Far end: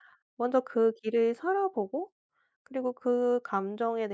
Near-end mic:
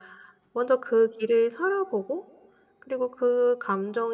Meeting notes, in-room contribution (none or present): none